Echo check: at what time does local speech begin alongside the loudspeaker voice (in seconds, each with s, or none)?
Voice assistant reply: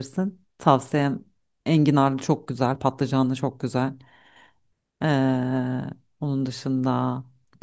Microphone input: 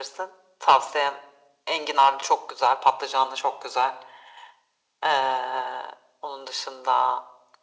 none